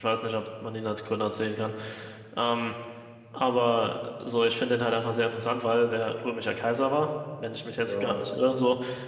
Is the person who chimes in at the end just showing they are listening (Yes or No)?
Yes